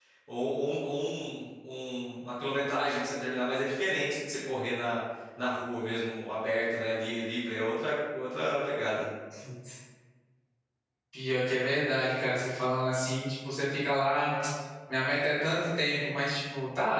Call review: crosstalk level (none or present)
none